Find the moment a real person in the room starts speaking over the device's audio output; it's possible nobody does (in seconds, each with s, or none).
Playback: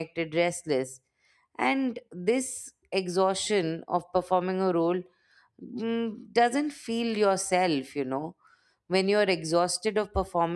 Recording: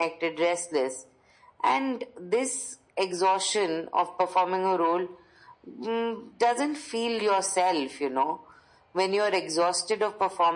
none